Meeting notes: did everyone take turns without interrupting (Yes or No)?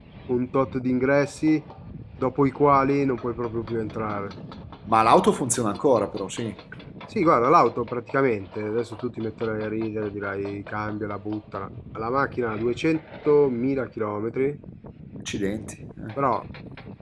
Yes